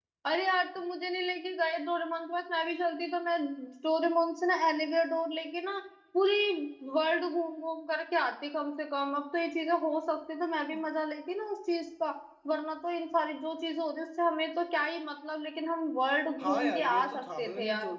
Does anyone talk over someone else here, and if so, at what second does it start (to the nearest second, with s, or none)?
16 s